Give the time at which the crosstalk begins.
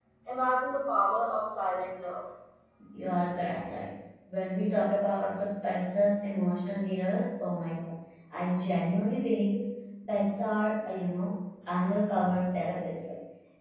none

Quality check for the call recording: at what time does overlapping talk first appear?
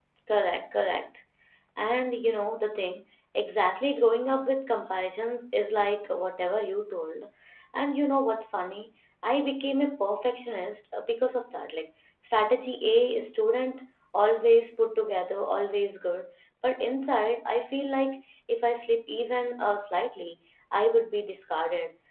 none

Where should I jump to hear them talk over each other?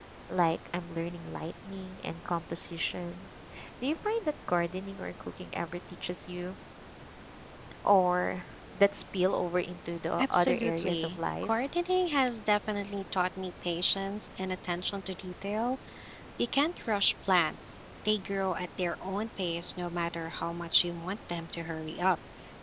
10.2 s

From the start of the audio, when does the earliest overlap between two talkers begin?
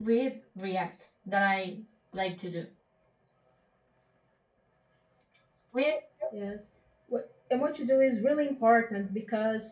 none

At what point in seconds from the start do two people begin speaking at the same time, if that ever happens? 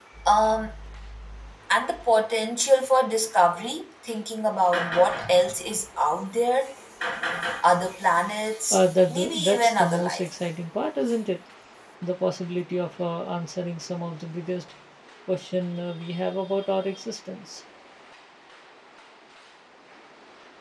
8.7 s

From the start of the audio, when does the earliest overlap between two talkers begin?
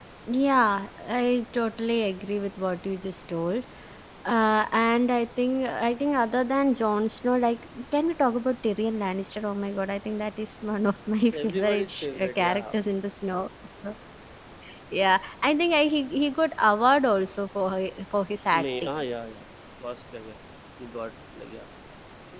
11.3 s

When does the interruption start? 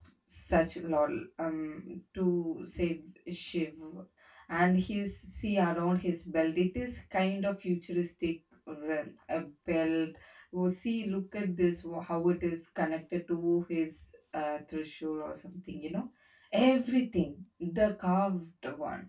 none

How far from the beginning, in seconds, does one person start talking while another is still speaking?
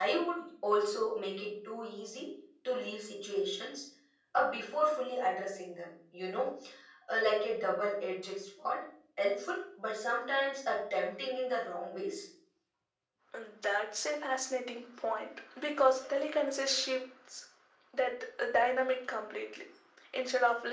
none

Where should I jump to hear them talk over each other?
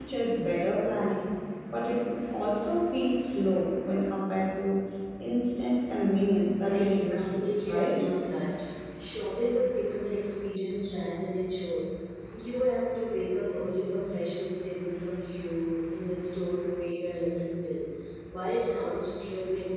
6.6 s

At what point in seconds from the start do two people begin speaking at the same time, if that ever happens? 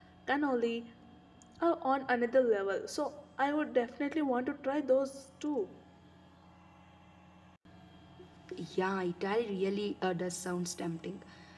none

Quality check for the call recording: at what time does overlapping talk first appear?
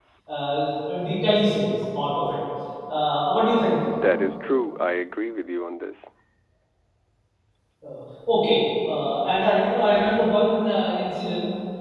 none

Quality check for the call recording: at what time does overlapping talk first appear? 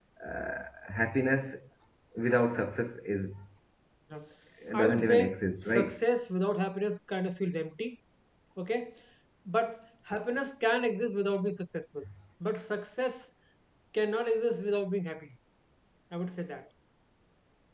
4.8 s

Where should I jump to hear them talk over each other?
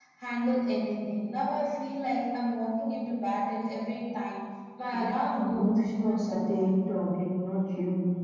4.9 s

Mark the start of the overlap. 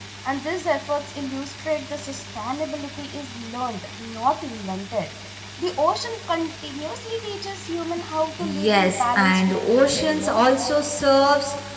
8.4 s

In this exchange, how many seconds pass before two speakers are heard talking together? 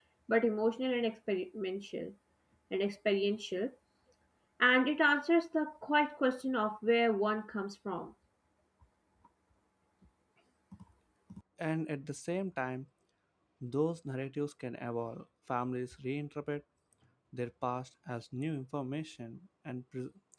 none

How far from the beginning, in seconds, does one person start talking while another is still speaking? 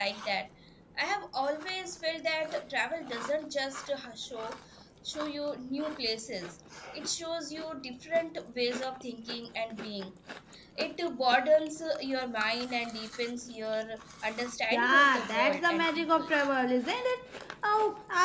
14.7 s

